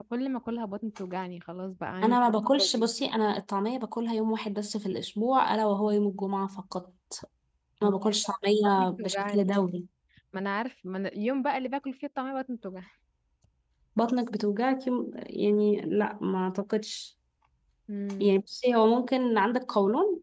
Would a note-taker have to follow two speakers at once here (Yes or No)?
Yes